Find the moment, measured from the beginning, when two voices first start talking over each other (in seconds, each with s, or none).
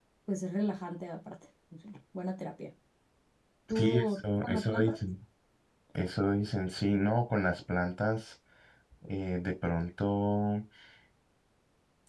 3.7 s